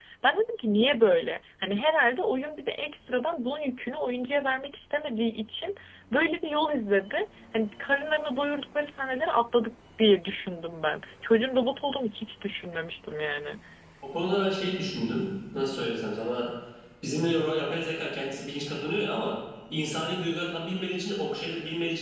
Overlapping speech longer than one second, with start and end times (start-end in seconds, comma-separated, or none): none